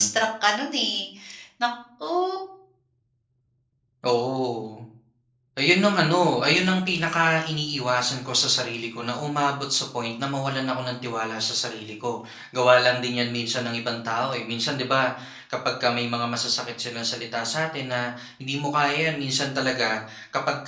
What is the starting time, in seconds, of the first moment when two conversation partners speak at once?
none

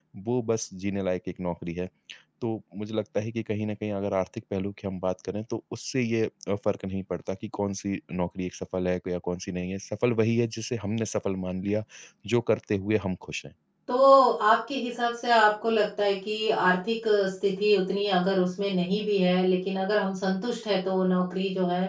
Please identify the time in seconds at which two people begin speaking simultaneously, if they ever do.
none

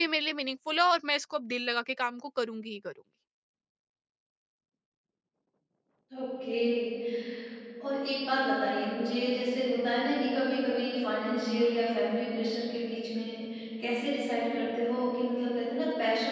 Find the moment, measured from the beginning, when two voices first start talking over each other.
none

